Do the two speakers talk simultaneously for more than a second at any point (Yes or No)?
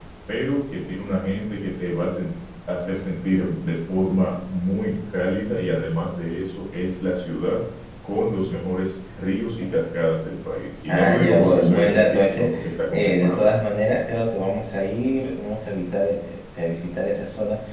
Yes